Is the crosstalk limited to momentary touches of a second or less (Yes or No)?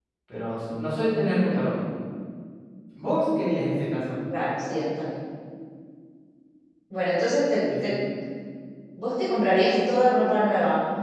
Yes